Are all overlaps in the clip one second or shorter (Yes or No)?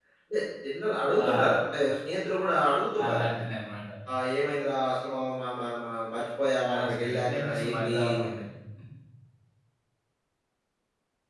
No